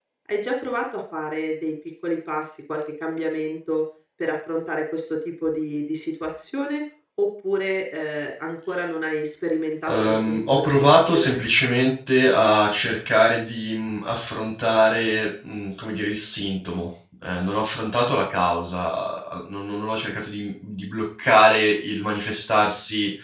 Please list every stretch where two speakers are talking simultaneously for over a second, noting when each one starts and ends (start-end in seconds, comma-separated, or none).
9.9-11.4